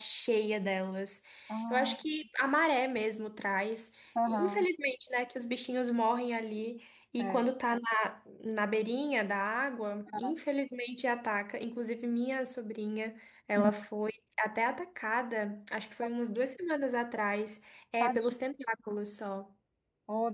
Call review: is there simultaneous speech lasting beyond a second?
No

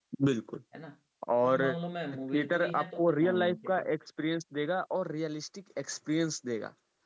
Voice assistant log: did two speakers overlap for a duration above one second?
Yes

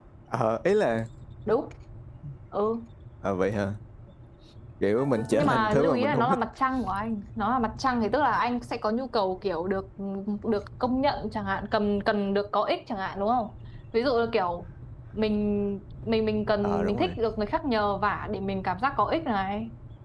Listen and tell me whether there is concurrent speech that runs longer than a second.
Yes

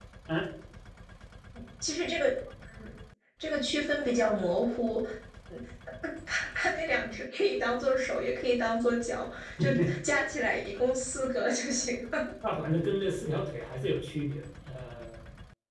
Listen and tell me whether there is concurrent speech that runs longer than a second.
No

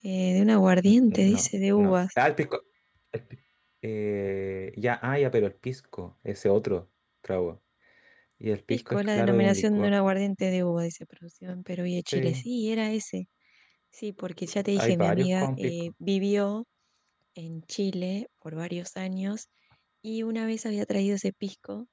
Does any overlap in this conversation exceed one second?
Yes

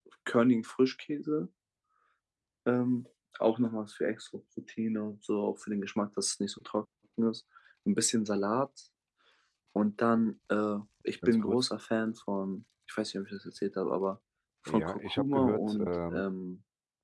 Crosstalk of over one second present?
Yes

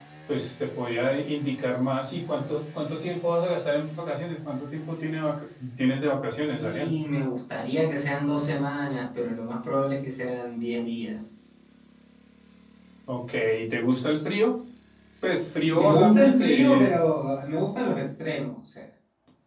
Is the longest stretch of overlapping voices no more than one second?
No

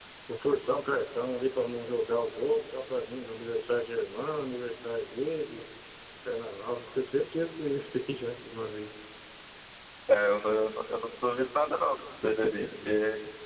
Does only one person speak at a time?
Yes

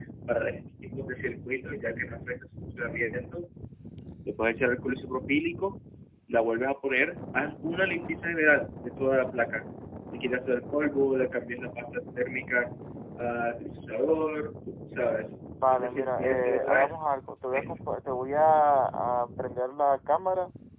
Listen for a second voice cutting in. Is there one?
Yes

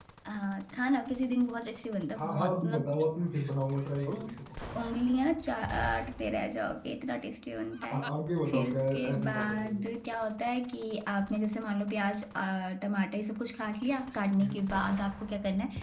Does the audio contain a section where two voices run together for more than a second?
Yes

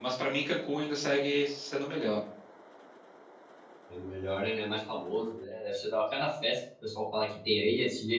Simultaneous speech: No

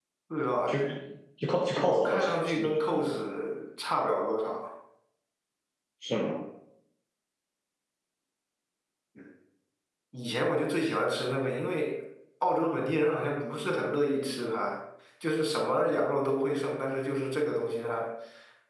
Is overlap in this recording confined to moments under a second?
No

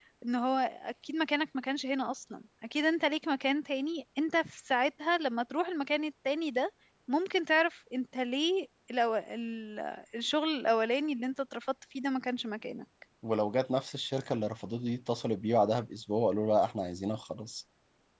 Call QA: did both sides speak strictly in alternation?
Yes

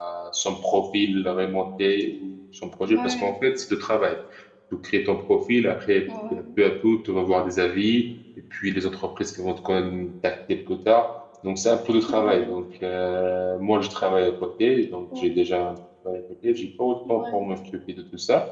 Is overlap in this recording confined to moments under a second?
Yes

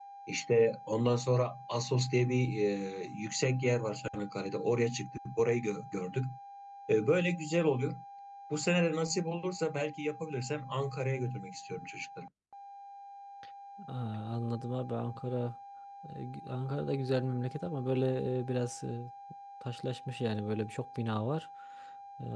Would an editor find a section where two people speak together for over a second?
No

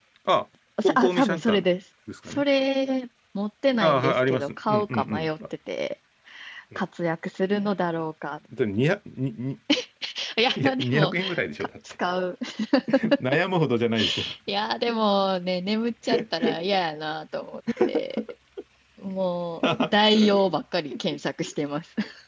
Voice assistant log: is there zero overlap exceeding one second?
No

